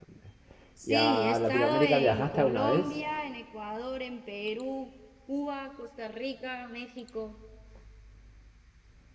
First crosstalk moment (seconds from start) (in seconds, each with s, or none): 0.9 s